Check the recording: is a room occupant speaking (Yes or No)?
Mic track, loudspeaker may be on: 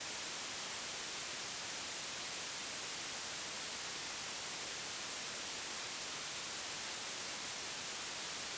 No